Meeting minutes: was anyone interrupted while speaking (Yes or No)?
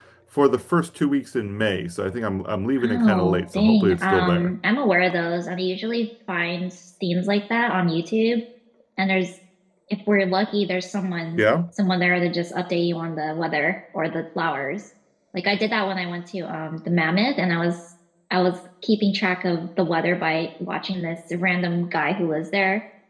Yes